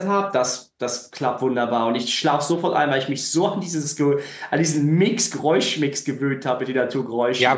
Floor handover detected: Yes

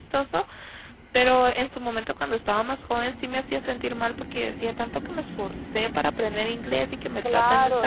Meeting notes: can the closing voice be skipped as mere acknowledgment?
No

